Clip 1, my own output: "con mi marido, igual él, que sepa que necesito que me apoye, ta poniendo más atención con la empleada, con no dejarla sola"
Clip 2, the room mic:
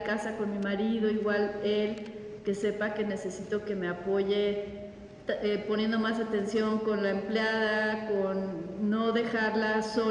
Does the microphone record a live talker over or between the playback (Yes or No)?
No